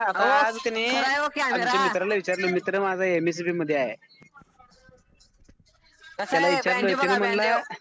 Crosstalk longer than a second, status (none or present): present